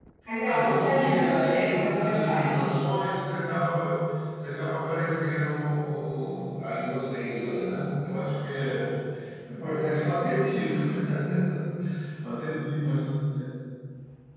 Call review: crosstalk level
present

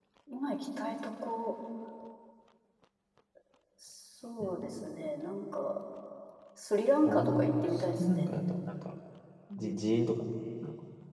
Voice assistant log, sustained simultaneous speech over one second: present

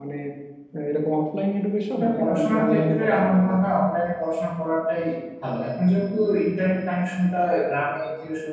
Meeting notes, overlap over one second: present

